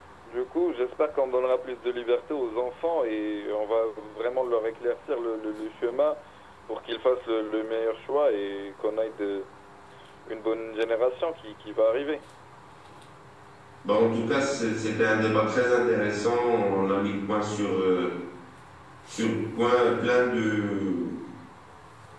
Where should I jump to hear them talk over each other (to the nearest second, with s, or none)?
none